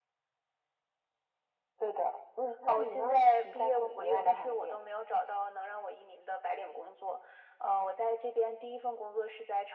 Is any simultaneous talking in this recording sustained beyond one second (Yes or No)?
Yes